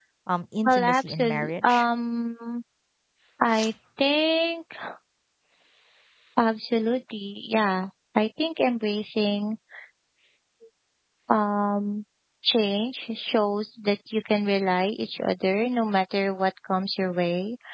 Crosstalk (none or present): present